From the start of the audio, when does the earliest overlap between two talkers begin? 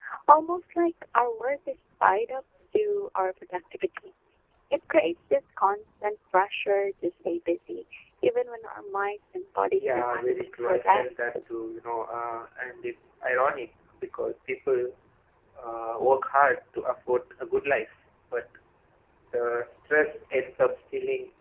9.8 s

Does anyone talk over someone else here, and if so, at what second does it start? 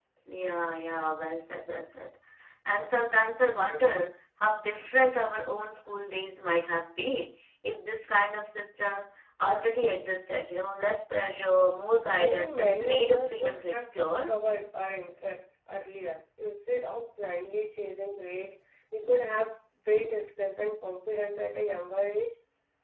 12.2 s

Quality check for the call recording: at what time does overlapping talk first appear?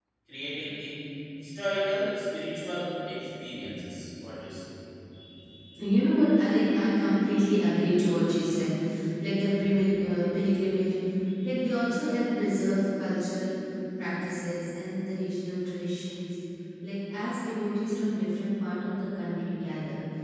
none

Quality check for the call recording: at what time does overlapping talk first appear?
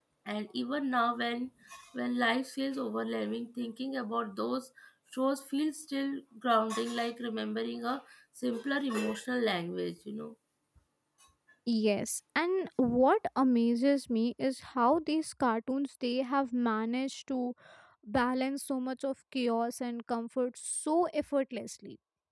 none

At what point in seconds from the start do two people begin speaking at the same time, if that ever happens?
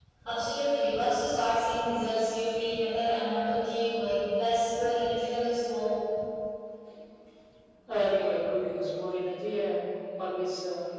none

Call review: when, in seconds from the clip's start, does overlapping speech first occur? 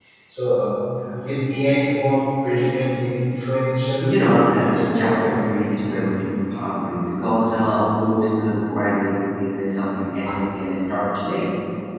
4.0 s

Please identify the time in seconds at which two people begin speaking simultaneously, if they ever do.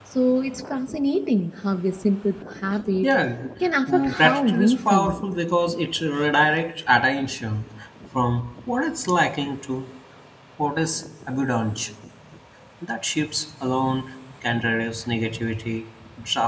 3.9 s

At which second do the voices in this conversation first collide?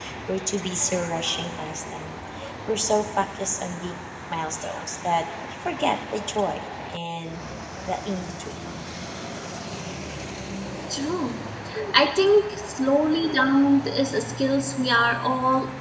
none

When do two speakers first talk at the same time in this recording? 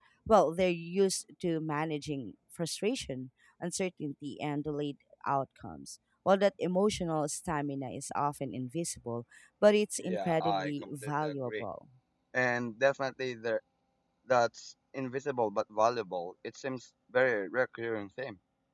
10.0 s

